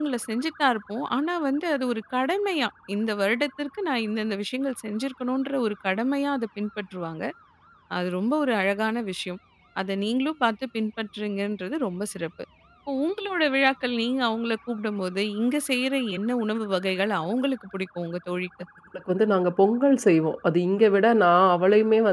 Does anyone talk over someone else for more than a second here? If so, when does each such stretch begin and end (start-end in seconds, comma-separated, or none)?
none